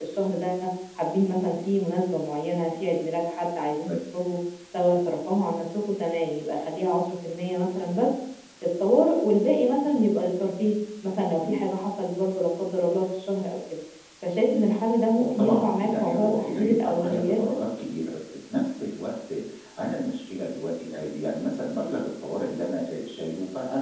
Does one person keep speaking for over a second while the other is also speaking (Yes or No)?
Yes